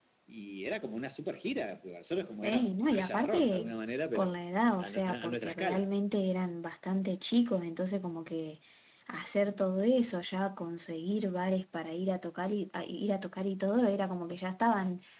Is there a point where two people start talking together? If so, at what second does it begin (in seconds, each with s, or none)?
2.4 s